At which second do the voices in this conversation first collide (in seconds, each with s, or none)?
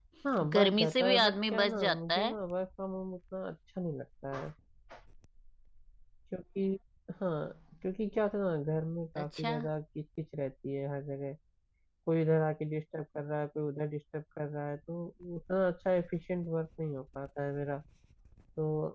0.5 s